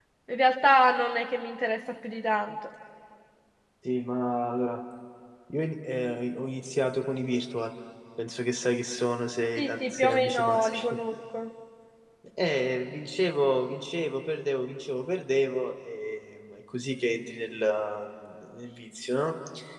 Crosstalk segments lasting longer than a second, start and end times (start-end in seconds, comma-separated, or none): 9.6-11.0